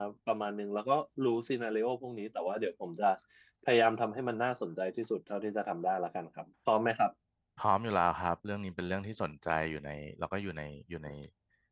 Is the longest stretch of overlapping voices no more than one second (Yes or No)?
Yes